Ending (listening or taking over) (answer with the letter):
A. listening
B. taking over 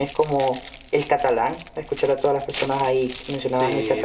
B